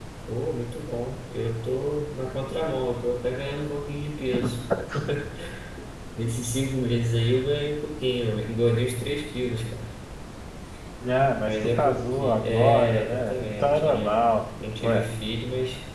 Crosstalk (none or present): present